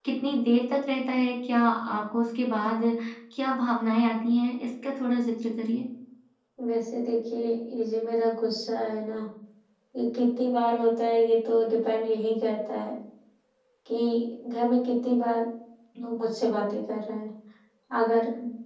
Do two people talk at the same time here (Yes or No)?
No